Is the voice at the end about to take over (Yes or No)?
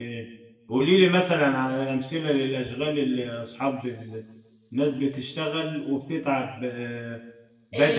Yes